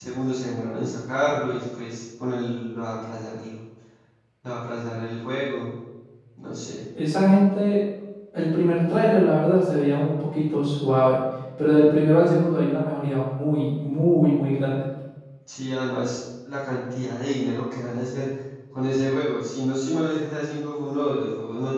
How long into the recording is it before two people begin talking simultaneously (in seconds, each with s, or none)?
none